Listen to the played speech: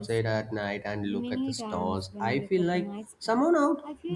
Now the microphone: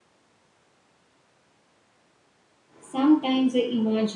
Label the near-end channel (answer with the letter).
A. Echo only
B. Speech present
B